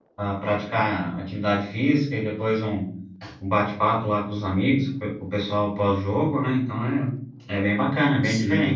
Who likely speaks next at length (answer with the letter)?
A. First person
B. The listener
B